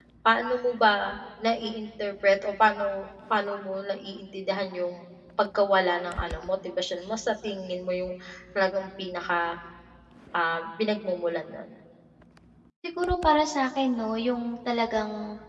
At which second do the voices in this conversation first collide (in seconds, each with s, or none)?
none